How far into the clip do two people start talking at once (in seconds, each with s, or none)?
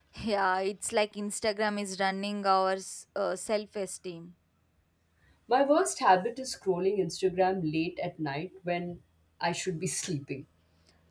none